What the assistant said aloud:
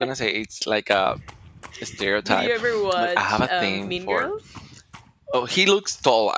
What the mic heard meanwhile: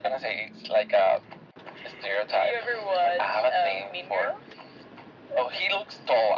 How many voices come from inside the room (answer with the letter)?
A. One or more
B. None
B